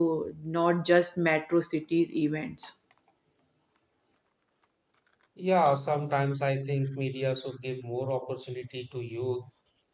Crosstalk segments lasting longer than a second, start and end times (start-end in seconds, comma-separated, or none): none